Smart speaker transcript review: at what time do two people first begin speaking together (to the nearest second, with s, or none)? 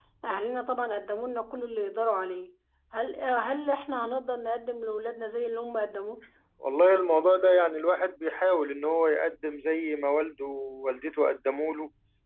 none